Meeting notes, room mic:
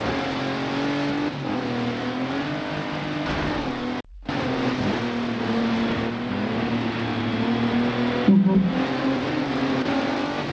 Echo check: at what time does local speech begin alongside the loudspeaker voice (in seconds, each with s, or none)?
8.3 s